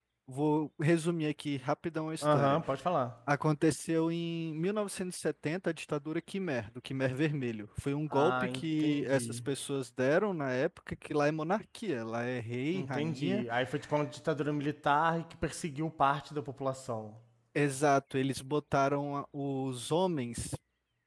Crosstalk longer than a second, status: present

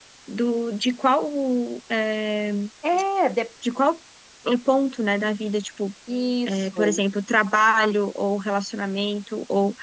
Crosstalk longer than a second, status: none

